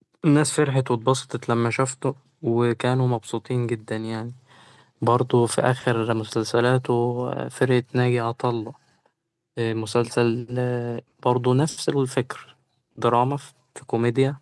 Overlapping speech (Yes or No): No